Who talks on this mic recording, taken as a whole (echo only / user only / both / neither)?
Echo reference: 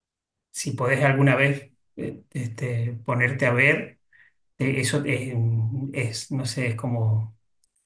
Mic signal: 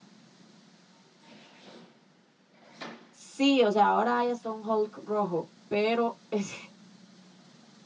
user only